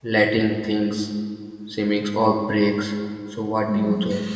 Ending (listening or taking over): taking over